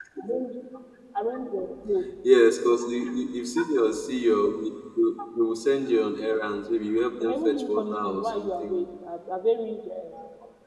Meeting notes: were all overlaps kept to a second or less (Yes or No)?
No